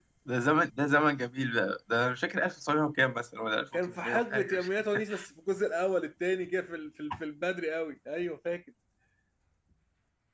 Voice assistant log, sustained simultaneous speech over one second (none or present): present